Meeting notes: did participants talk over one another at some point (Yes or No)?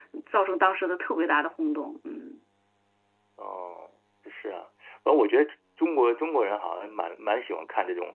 No